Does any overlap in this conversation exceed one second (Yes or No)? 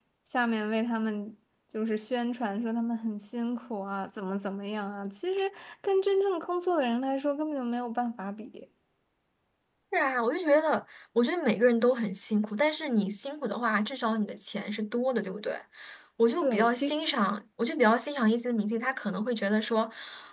No